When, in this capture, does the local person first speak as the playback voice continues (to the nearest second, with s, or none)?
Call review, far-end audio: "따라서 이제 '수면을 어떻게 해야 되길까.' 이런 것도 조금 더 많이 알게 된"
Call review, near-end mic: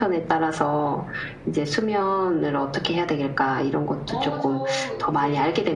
4 s